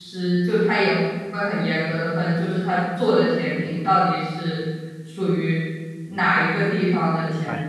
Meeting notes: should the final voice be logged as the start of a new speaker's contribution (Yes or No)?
Yes